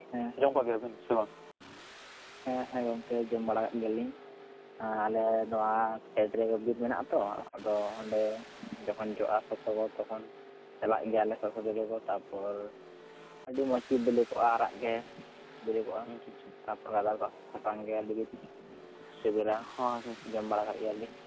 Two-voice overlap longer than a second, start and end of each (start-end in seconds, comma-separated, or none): none